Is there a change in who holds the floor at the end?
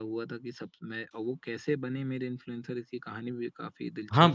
Yes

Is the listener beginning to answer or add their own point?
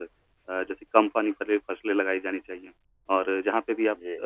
No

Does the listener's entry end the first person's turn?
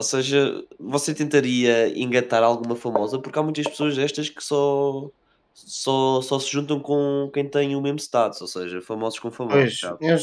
Yes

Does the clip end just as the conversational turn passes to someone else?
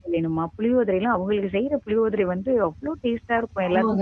Yes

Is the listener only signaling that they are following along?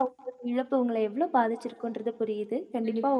Yes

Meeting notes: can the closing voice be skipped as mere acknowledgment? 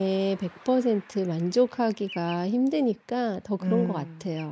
No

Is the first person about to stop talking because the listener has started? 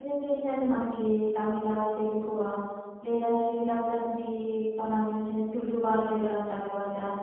Yes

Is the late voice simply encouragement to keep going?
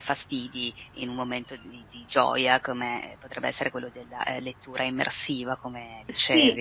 No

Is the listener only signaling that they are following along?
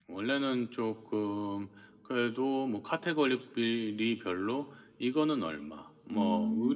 Yes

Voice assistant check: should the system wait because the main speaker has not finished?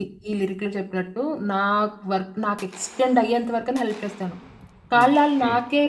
Yes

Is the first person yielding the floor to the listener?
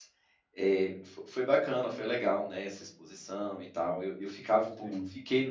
No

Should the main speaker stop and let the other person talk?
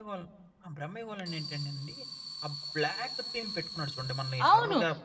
Yes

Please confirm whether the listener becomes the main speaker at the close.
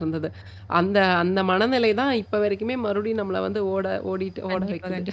Yes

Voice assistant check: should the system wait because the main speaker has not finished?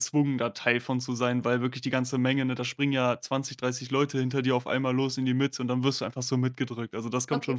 No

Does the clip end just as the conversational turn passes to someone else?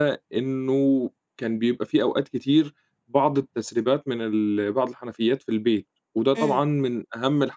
No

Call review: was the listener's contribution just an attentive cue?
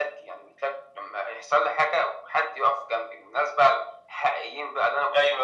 No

